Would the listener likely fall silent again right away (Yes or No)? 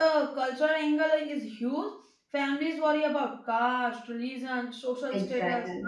Yes